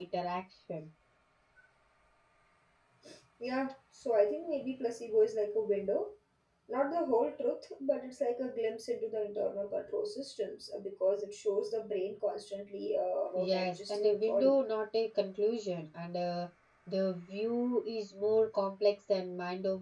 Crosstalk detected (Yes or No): Yes